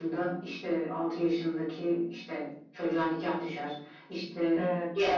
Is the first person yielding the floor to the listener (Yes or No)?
No